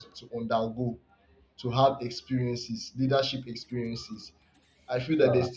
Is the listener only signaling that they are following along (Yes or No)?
Yes